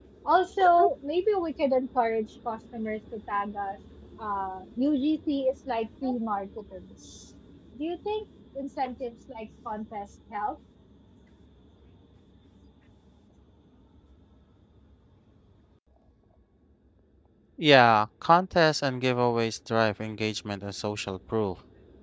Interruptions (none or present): none